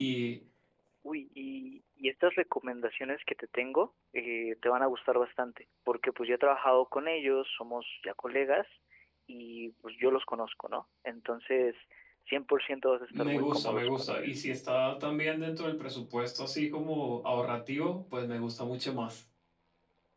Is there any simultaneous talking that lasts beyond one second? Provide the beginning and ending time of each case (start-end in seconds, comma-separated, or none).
13.1-14.4